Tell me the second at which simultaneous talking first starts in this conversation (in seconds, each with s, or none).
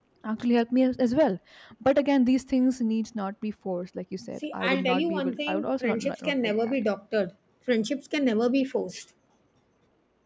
4.4 s